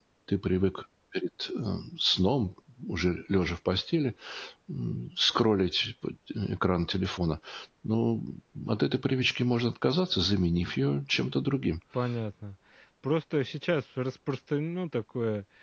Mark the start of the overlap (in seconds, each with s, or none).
none